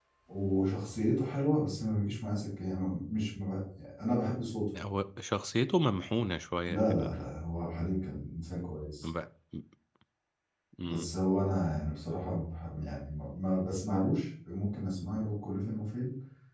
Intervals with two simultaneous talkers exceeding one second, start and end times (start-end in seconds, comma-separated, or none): none